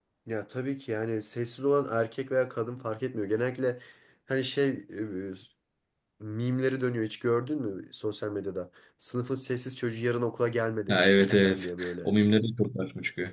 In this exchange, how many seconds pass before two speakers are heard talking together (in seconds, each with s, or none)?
10.9 s